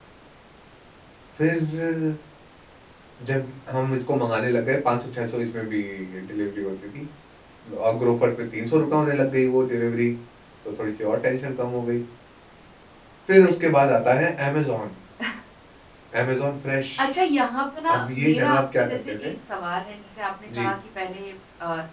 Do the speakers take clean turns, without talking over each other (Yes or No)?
No